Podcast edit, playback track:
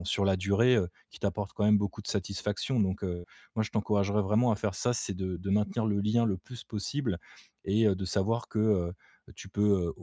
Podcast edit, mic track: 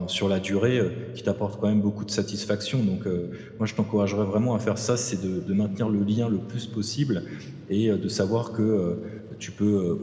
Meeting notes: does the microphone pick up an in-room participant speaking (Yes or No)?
No